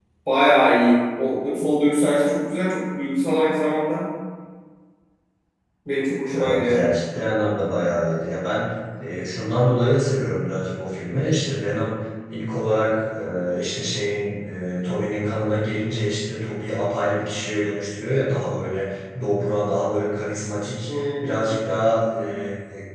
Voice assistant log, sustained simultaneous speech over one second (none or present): none